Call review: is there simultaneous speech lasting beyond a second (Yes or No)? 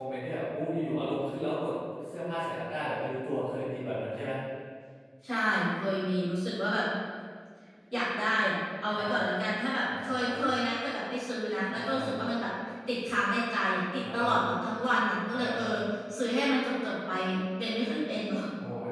No